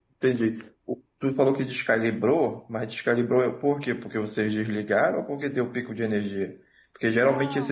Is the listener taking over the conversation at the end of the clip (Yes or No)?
No